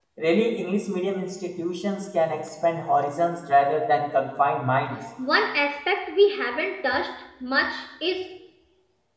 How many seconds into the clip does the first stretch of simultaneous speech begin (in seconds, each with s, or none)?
none